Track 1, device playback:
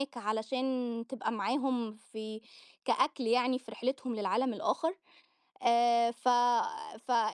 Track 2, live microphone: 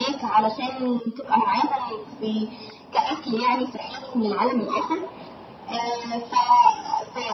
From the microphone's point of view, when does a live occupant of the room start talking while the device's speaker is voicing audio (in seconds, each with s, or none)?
none